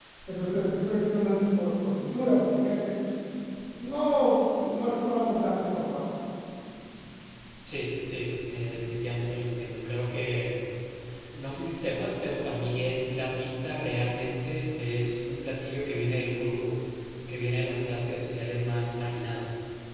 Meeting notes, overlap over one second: none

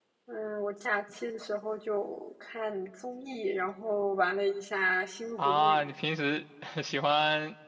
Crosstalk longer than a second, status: none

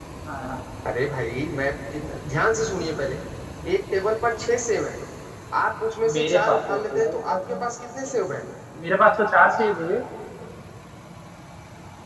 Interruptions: present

